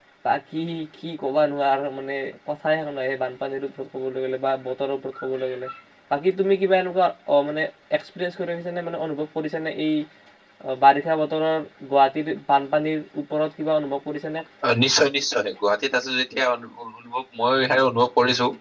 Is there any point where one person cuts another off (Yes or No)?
No